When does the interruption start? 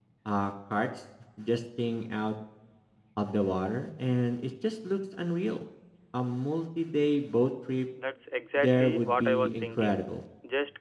9 s

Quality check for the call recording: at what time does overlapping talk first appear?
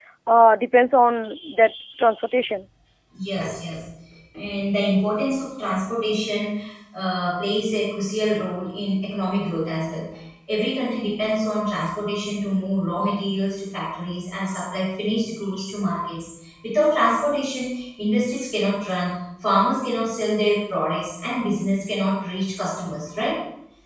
none

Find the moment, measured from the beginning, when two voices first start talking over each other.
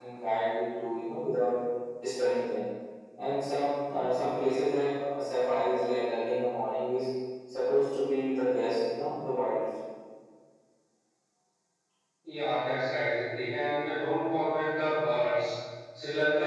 none

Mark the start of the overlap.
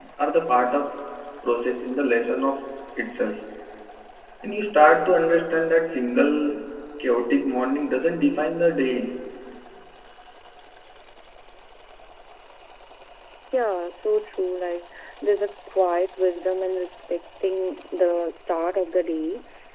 none

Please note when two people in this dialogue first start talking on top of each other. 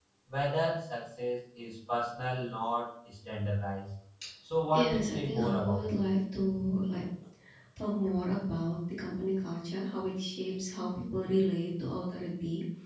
5 s

